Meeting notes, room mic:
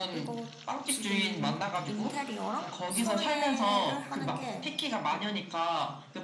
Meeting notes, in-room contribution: present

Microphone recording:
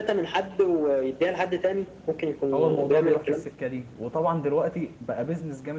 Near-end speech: present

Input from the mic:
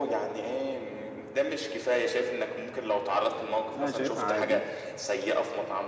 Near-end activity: present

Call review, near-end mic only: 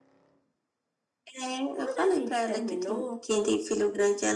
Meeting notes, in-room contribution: present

